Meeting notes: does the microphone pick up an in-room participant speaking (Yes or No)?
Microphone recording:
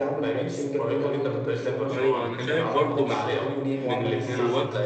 Yes